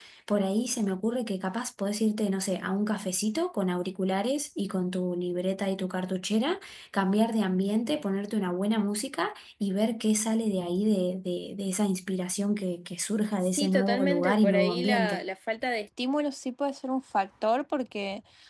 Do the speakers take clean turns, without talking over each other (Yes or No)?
No